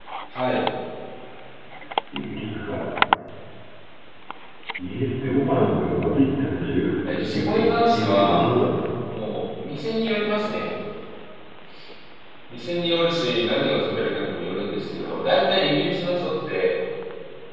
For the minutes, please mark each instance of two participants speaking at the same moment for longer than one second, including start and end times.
7.1-8.4

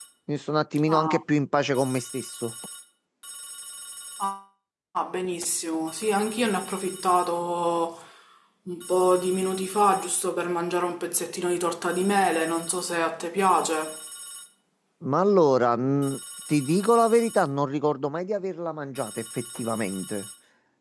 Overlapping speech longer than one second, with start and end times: none

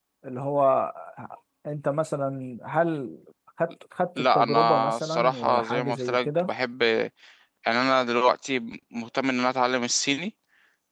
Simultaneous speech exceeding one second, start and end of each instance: 4.2-6.5

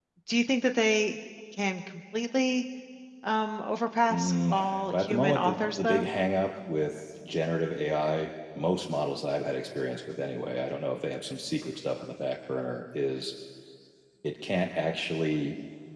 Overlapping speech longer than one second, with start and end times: 4.1-6.1

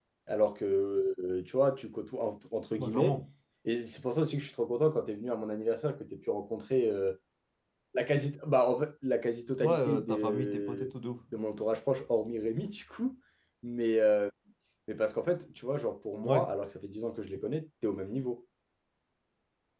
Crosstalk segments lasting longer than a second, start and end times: 9.6-10.9

